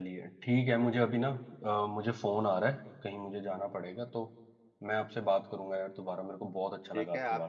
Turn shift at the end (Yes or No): Yes